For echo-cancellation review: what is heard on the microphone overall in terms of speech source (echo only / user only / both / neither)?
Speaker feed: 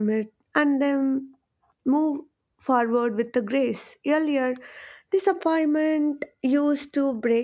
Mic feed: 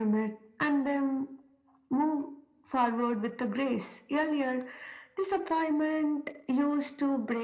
echo only